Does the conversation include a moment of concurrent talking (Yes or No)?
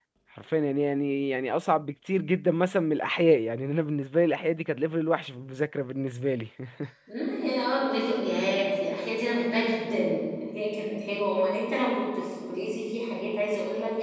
No